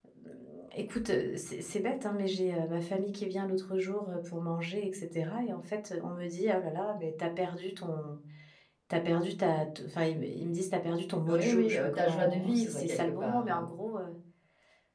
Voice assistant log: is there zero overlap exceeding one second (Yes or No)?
No